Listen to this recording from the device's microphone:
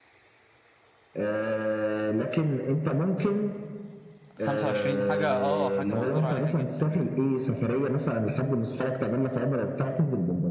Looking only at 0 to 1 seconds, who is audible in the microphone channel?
neither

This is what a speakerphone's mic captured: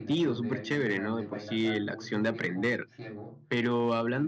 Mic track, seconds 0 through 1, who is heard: both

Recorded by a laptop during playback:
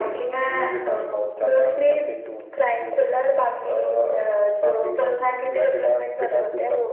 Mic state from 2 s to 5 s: echo only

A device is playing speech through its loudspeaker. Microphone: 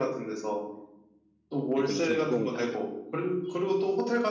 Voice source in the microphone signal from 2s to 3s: both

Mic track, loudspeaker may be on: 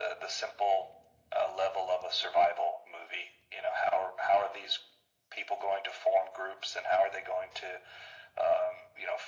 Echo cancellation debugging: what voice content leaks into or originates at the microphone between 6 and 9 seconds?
echo only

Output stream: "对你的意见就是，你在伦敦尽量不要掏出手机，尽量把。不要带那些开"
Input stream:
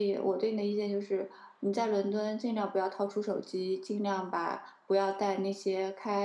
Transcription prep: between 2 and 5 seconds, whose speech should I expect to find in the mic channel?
echo only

